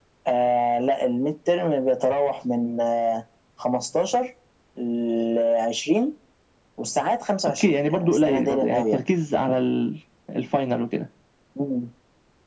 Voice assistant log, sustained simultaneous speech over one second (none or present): present